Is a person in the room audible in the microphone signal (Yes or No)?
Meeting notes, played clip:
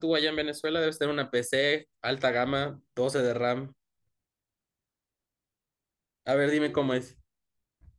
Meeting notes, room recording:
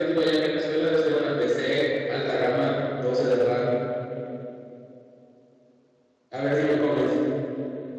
No